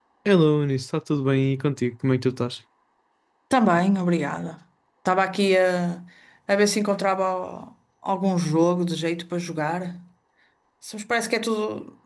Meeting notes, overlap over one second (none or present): none